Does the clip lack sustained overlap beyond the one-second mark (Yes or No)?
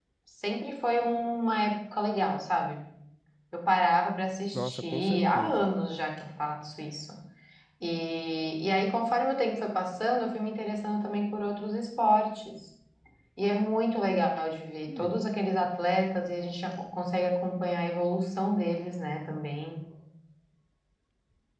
No